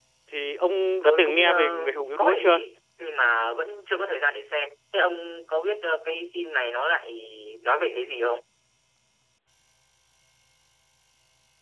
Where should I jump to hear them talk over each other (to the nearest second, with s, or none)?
1 s